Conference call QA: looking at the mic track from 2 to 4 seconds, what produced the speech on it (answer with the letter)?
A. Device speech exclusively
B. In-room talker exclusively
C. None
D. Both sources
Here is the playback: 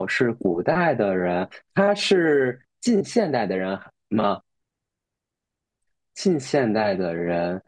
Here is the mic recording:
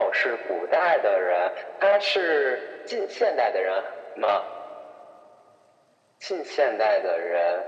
A